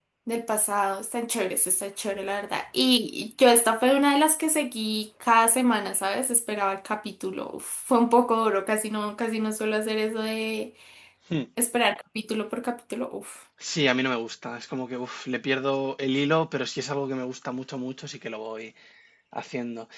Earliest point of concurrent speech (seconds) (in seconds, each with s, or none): none